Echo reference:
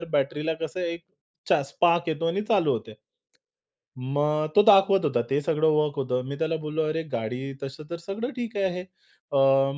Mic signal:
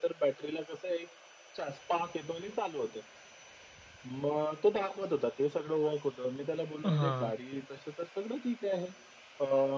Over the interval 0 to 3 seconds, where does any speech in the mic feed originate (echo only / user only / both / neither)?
echo only